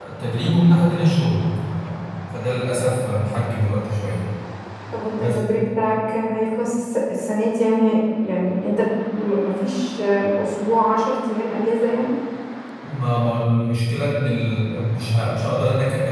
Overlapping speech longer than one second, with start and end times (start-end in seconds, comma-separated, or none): none